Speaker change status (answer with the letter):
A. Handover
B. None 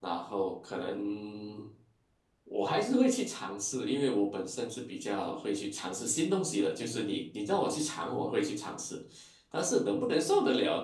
B